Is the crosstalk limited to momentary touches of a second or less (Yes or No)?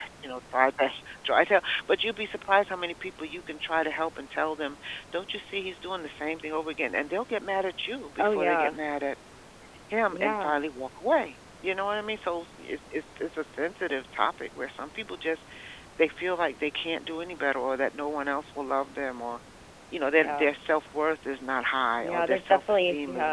No